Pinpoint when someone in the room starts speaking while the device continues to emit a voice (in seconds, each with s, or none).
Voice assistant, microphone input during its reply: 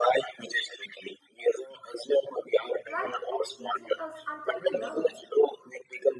2.9 s